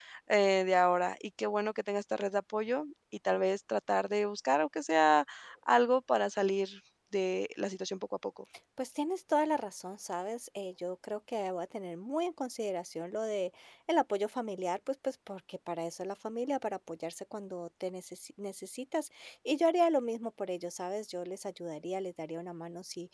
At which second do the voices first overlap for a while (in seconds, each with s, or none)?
none